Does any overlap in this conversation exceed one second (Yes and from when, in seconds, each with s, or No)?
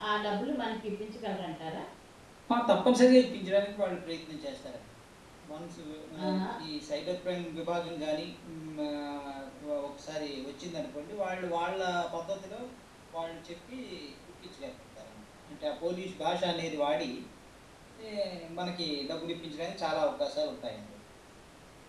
No